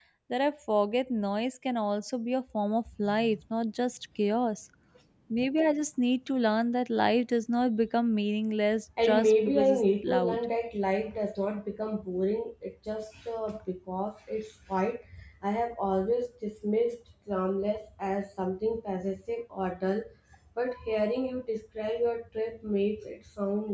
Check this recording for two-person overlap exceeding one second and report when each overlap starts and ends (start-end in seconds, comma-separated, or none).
9.0-10.4